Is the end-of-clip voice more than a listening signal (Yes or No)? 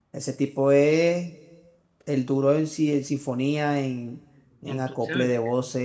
No